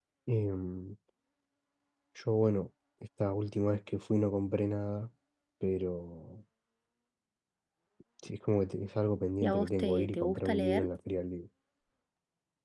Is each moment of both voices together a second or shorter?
No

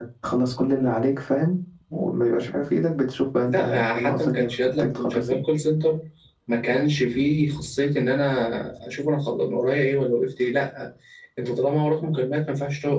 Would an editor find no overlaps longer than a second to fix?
No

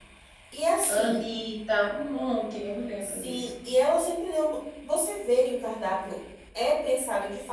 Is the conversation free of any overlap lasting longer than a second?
Yes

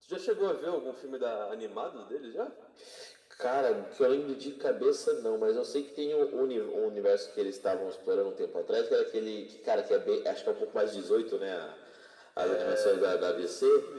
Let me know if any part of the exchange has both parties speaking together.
Yes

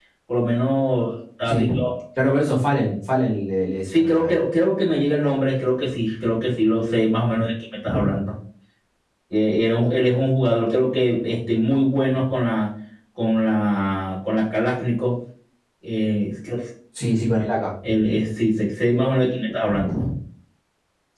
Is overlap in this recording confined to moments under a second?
Yes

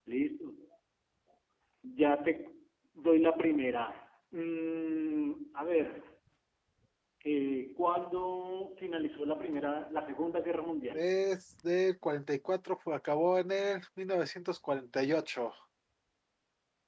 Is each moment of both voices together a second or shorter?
Yes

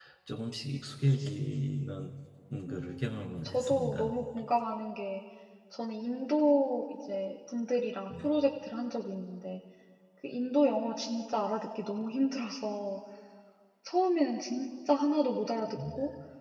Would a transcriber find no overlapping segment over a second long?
No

